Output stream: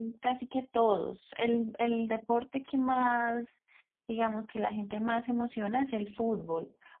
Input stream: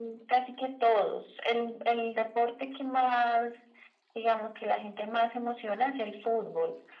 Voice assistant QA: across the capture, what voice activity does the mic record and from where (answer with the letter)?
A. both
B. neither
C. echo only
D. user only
C